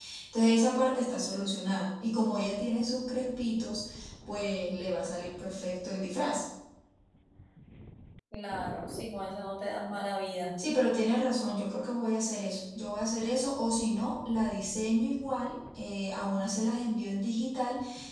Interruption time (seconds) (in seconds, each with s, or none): none